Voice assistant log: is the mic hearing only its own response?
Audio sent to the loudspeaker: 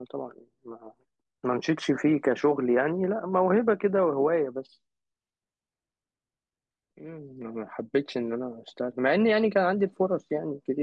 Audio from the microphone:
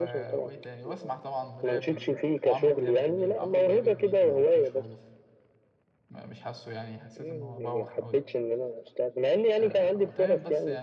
No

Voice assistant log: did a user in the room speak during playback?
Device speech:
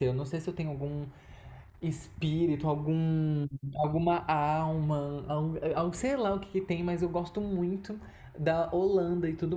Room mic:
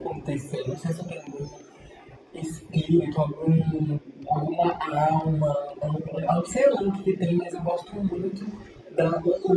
No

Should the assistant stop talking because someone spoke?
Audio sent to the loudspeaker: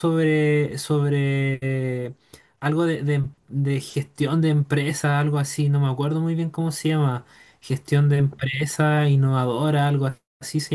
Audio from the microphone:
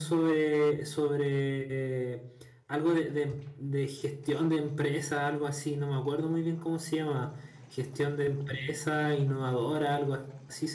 No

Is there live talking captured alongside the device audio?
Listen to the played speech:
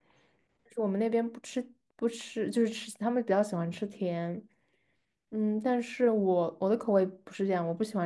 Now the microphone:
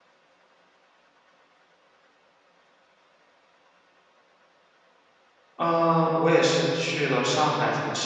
Yes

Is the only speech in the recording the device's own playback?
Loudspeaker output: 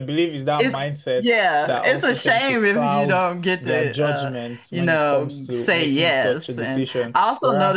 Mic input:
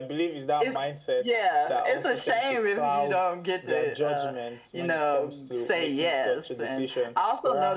Yes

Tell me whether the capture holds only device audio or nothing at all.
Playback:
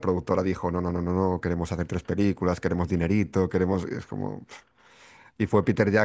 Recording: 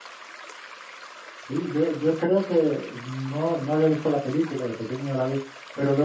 No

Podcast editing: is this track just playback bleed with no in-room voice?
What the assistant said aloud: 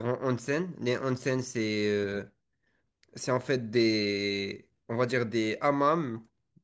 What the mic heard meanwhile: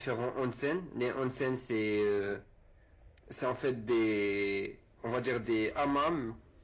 Yes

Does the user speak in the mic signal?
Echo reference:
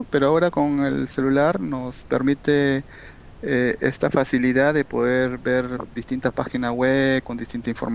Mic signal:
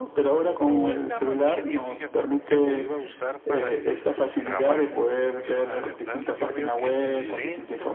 Yes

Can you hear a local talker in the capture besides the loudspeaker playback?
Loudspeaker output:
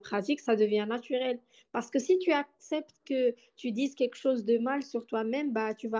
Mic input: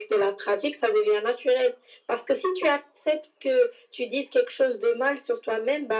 No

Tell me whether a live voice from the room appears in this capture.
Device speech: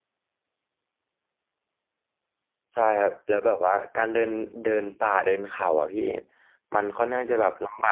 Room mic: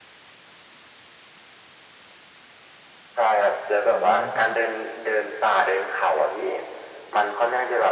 Yes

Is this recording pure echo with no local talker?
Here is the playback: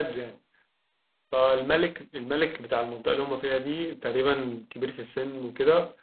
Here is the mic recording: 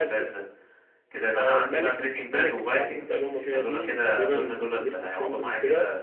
No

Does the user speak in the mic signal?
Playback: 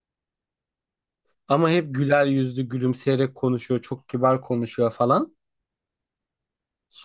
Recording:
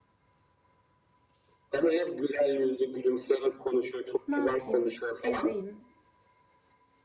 Yes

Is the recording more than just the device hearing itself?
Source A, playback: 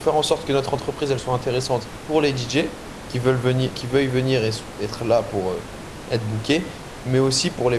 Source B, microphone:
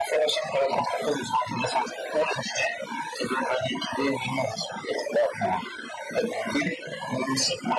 No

